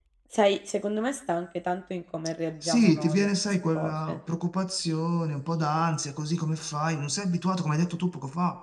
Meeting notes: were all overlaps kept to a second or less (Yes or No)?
No